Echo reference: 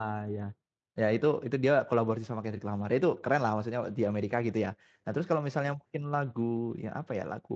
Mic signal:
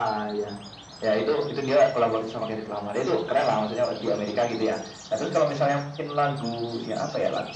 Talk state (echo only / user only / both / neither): echo only